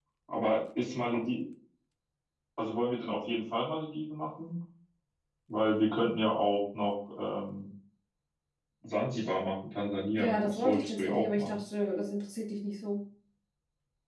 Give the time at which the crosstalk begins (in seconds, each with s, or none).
10.2 s